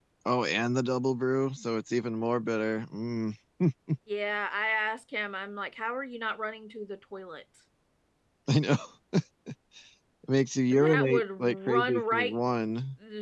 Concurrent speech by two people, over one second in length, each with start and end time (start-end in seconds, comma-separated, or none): 10.7-12.3